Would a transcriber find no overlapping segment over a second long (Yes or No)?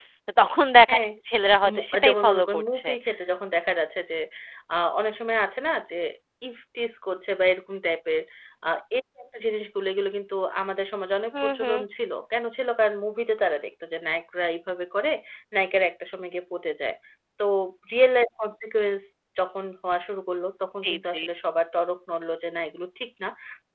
No